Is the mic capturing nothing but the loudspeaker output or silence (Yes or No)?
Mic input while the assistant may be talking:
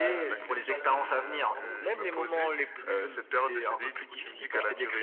No